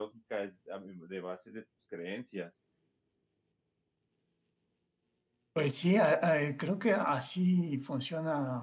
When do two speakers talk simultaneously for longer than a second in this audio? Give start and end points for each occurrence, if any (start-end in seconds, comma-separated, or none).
none